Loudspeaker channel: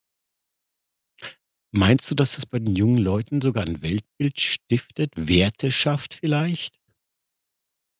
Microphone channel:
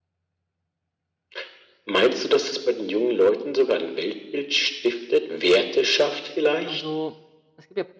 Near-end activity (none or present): present